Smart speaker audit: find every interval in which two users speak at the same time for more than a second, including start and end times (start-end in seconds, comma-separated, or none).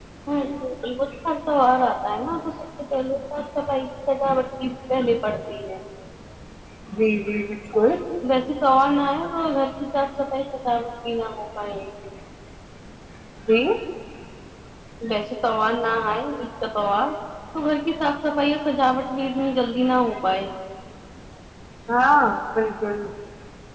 none